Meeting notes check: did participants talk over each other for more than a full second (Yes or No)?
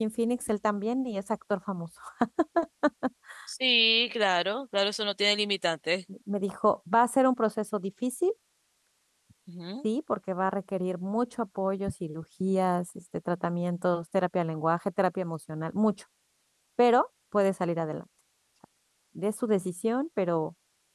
No